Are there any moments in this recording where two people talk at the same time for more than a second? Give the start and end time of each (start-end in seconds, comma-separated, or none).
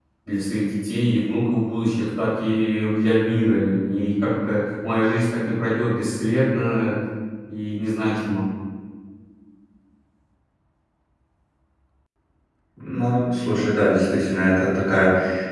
none